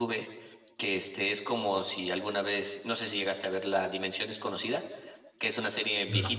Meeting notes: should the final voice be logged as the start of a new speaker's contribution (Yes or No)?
No